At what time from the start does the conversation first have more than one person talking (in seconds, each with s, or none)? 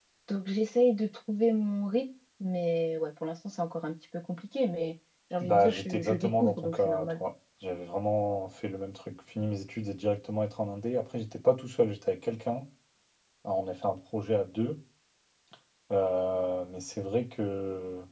5.4 s